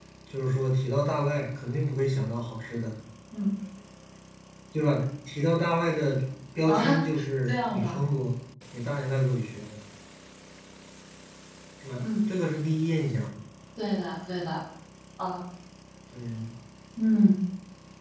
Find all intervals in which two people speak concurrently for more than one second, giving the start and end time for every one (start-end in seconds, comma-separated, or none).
none